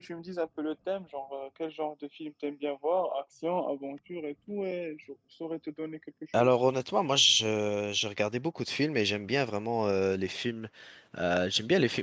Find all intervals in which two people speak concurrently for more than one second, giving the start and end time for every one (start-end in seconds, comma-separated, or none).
none